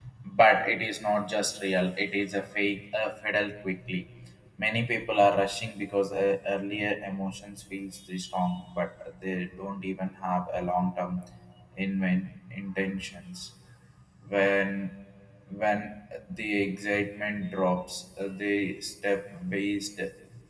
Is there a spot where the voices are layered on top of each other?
No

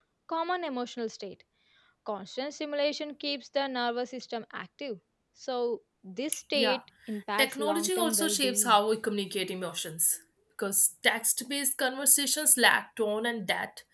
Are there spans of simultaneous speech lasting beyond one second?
Yes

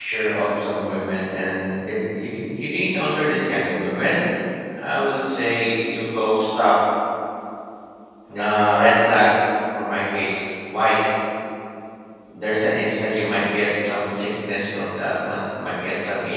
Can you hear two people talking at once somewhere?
No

